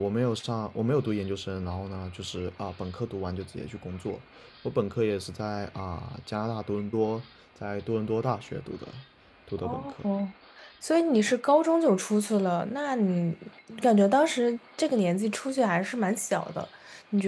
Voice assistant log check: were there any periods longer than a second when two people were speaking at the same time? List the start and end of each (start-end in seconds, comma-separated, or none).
none